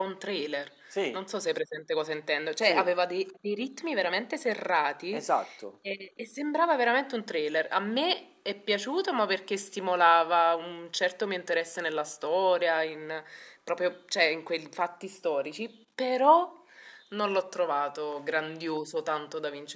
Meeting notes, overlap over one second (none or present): none